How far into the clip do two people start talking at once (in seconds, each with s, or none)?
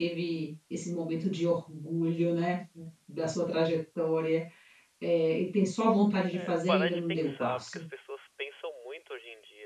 6.3 s